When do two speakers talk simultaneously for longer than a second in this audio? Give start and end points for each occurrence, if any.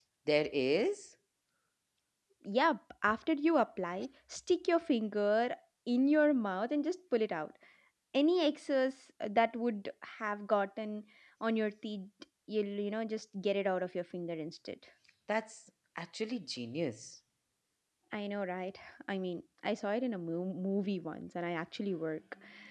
none

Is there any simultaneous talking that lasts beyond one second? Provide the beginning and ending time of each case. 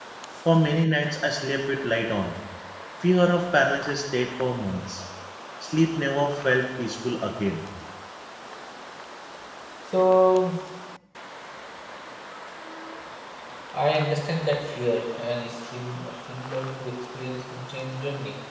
none

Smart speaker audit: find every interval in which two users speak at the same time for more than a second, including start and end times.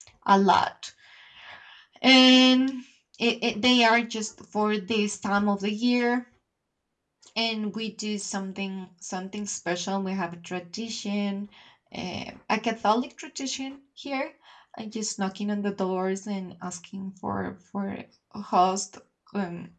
none

